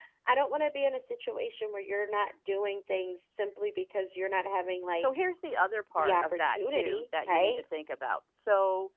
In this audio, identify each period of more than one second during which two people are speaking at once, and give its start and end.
6.0-7.6

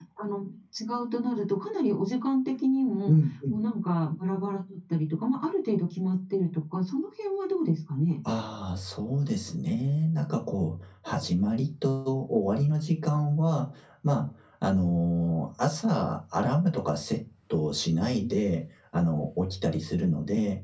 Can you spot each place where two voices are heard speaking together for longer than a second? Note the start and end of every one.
none

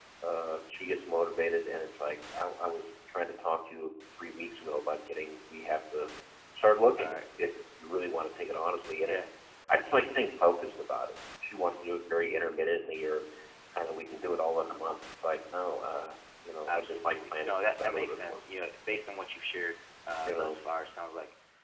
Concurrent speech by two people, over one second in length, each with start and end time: 16.7-18.4

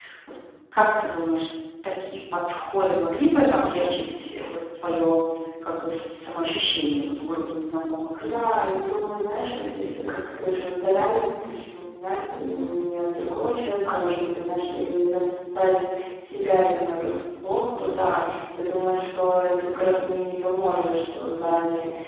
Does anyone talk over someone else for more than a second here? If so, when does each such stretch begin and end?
none

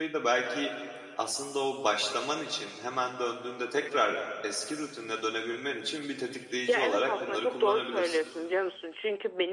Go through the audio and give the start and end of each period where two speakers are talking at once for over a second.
6.7-8.2

